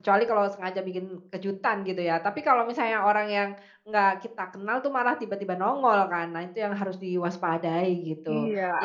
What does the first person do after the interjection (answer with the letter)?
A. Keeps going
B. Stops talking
B